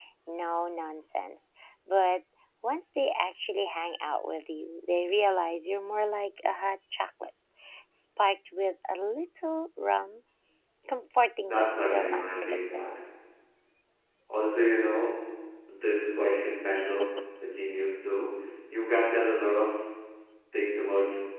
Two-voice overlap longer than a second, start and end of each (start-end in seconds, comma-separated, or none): 11.5-12.8